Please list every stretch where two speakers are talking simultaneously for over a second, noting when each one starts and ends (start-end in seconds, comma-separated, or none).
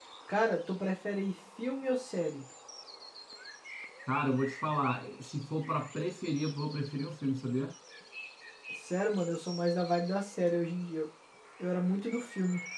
none